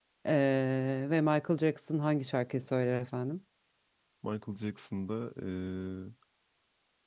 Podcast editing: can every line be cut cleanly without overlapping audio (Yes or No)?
Yes